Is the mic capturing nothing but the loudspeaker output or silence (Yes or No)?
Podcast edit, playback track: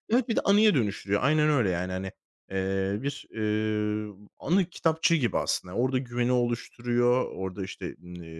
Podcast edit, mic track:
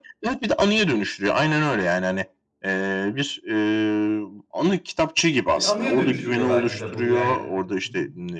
No